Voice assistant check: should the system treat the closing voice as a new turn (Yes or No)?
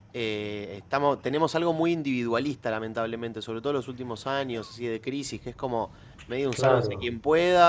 No